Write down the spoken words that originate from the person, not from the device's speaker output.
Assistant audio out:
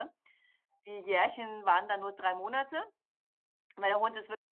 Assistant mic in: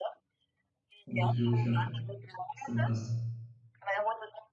Hundeführerschein, was du eben hast.

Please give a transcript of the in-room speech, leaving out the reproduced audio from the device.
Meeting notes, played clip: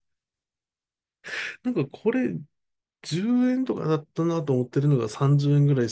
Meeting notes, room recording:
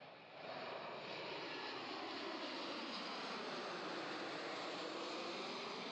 none

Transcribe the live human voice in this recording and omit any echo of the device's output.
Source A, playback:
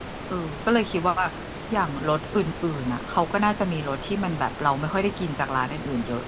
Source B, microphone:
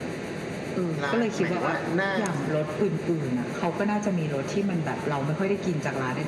ร้านหมายถึงว่าหน้า

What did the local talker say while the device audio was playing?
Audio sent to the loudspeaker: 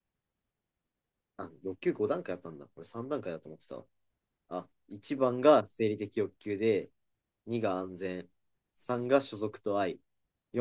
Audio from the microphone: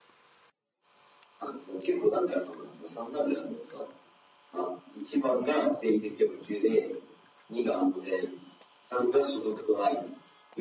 none

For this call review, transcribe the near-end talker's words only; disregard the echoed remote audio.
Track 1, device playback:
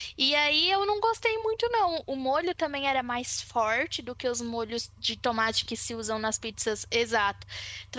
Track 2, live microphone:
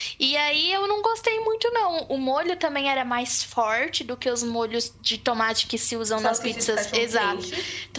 tipo salsicha de cachorro-quente

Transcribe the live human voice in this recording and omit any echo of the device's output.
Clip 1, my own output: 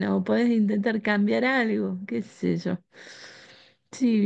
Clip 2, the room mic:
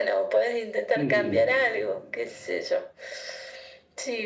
Sí, sí.

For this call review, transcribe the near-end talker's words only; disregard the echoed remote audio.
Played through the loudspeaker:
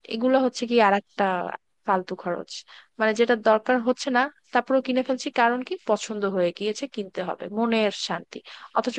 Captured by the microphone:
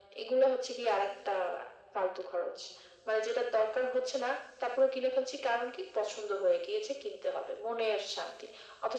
none

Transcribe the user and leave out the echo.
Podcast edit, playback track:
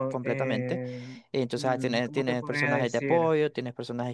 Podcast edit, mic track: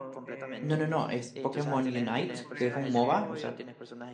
No, no, no, es Pokémon Unite, que es un MOBA, o sea,

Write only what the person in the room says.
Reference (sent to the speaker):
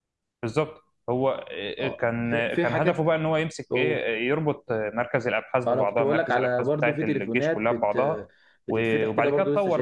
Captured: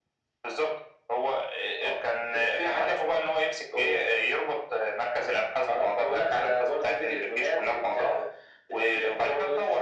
none

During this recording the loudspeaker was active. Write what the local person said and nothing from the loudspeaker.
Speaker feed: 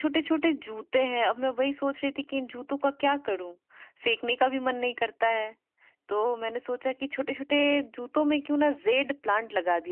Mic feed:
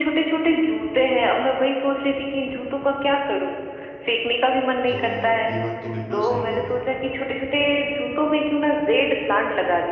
तो ये बात तो बिल्कुल सही कही है

